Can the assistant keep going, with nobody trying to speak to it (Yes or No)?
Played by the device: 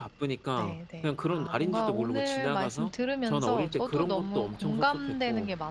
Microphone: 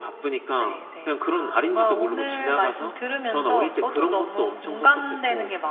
Yes